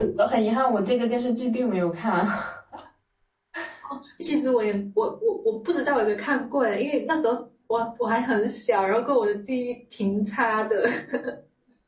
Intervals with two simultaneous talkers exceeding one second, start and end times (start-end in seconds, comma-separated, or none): none